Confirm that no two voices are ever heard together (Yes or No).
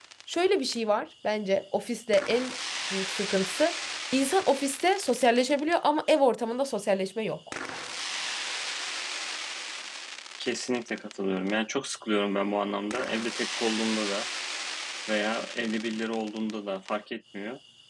Yes